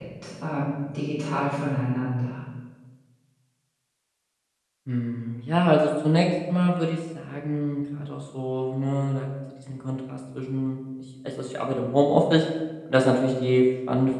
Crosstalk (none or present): none